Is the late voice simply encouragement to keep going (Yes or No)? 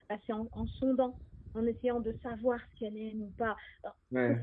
Yes